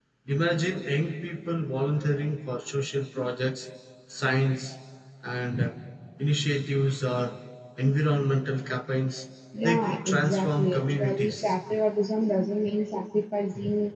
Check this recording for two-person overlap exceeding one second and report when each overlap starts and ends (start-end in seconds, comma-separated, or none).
9.6-11.5